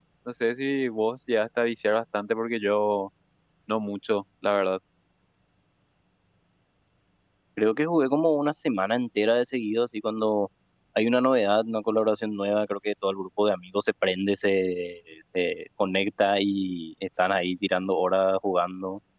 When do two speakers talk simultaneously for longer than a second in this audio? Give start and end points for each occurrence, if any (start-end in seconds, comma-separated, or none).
none